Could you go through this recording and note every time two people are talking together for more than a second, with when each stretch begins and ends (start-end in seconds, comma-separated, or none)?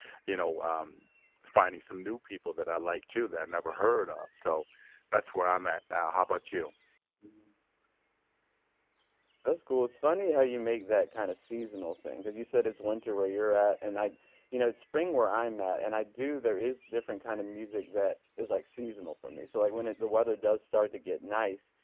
none